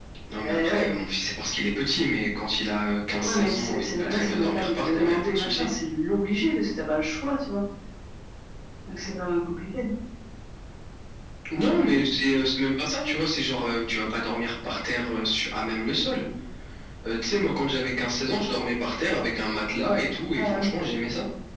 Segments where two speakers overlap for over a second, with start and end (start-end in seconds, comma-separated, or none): 3.2-5.7